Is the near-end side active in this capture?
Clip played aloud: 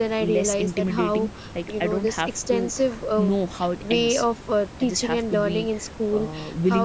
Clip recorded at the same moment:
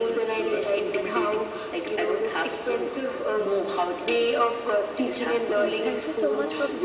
Yes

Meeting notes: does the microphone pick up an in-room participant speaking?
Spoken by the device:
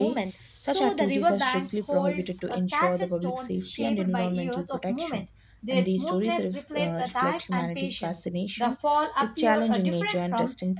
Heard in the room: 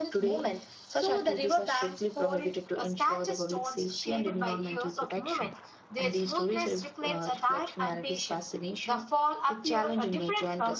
No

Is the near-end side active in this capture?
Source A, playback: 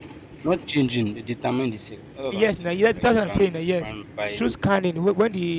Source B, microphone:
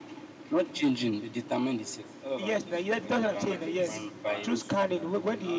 Yes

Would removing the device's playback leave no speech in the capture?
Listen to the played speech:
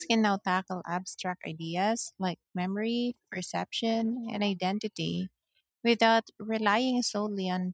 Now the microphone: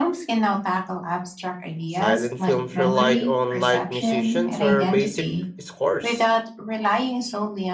No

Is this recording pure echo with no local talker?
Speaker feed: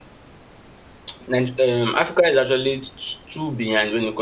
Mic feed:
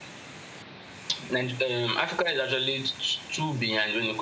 Yes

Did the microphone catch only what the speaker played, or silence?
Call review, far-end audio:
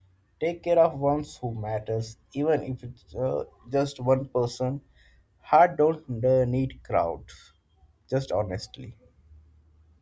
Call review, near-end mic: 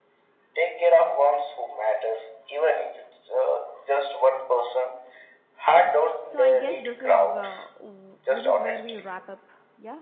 No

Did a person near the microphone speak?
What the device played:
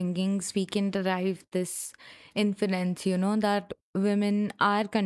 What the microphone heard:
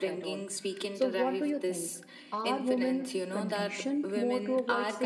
Yes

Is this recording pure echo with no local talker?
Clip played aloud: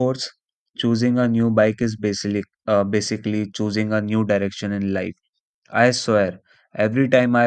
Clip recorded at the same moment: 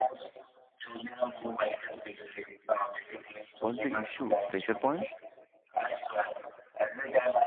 No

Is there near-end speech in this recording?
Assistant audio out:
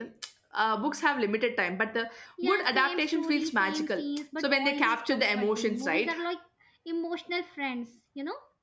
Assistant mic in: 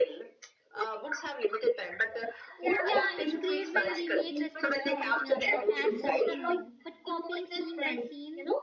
Yes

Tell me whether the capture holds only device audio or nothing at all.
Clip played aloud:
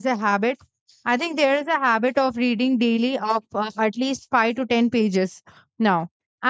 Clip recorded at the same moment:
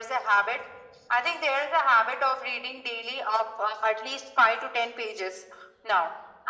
Yes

